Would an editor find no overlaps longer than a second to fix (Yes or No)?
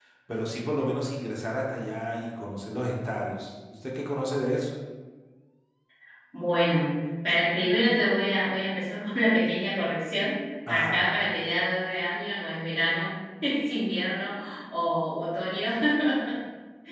Yes